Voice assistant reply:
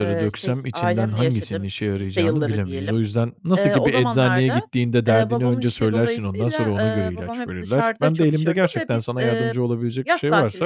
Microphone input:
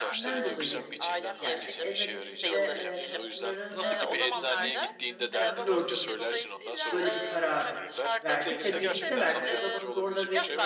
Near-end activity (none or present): present